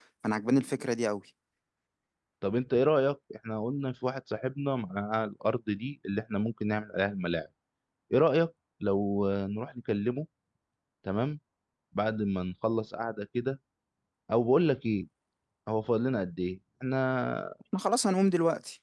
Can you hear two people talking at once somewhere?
No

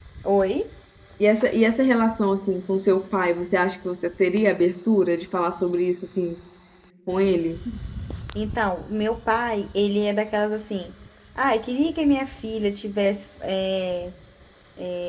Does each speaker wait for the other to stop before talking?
Yes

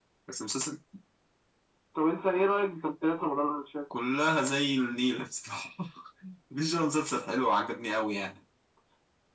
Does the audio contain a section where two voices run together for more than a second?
No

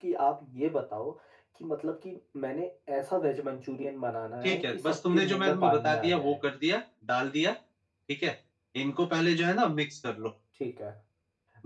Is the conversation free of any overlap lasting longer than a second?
No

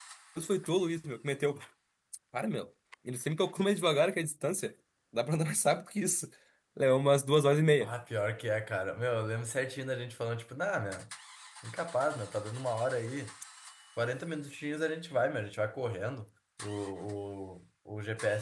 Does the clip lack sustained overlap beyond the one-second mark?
Yes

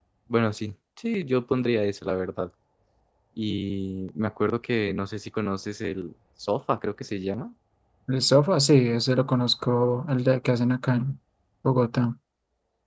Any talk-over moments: No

